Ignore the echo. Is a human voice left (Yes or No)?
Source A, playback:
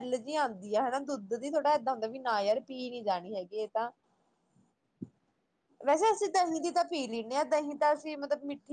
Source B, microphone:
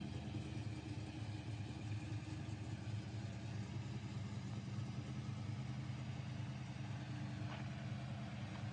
No